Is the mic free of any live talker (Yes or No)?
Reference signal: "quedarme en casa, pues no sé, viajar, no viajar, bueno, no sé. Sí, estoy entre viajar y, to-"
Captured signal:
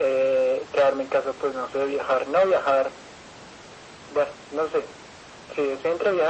Yes